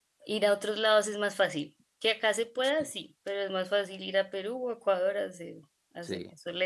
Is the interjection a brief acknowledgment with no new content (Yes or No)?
No